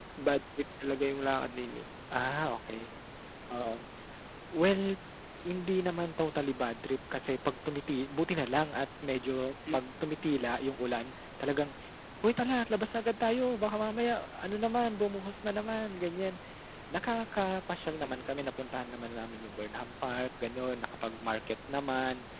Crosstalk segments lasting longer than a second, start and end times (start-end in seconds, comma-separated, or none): none